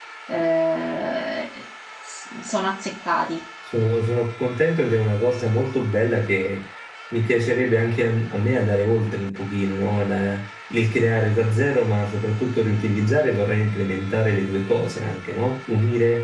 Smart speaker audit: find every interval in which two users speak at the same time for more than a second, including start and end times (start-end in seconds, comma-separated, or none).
none